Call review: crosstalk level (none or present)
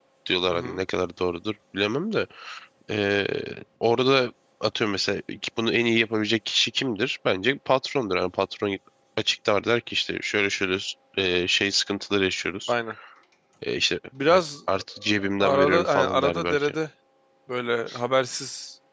present